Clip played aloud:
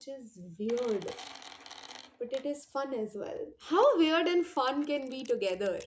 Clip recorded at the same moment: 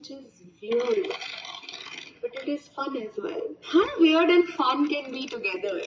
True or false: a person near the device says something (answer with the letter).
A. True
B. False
B